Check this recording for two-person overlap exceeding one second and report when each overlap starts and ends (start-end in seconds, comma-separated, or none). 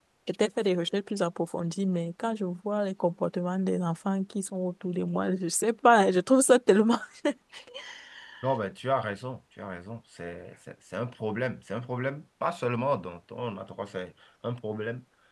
none